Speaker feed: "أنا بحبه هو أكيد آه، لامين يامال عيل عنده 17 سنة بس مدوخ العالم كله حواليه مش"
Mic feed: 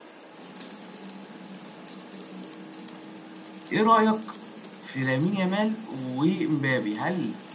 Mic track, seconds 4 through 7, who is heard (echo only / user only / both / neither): user only